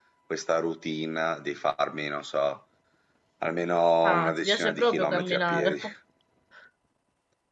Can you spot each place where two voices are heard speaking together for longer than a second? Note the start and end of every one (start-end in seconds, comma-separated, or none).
4.0-5.8